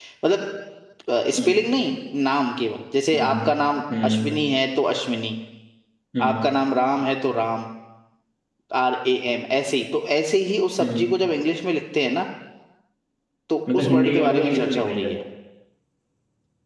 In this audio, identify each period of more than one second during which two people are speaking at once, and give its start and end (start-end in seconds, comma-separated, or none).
13.7-15.1